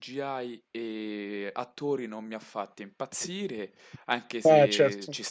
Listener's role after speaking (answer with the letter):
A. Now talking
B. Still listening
B